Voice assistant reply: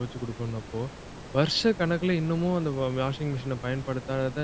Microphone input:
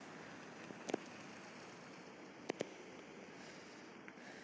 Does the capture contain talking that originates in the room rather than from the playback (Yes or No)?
No